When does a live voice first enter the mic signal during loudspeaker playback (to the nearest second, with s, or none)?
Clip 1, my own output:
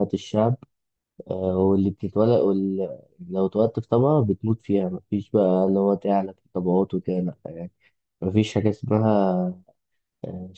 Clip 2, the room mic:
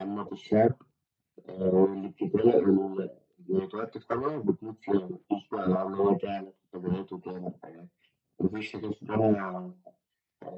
none